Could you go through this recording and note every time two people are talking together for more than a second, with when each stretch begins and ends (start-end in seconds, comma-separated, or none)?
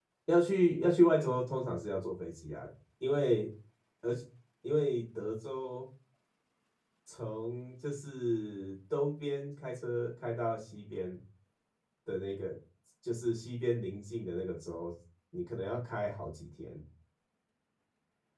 none